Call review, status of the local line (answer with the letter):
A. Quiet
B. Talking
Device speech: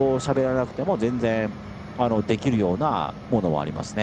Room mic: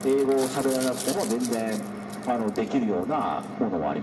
A